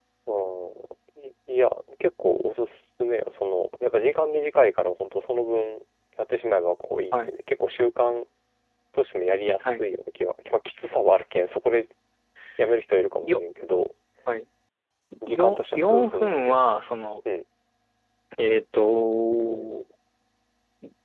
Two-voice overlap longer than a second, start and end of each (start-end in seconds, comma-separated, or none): 15.3-16.5